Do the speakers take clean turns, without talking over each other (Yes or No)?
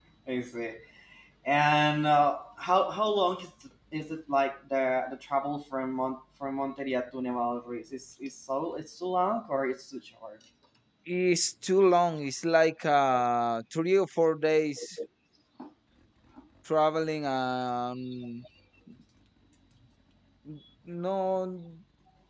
Yes